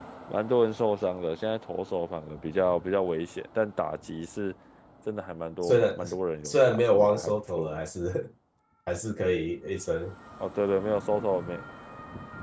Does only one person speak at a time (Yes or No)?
No